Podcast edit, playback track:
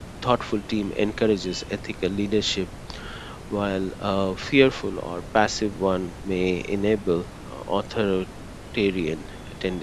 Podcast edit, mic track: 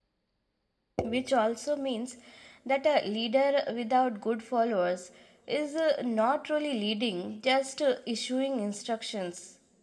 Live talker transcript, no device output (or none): which also means that a leader without good followers is uh, not really leading, just uh, issuing instructions.